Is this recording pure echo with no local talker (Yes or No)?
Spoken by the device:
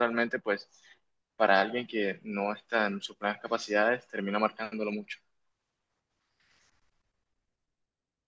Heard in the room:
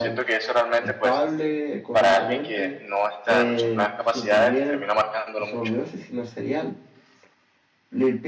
No